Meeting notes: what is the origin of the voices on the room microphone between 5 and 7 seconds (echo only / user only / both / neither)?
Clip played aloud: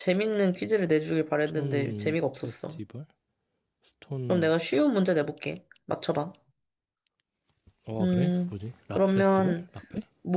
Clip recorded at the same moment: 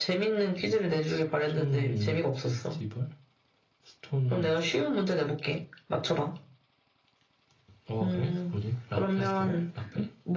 echo only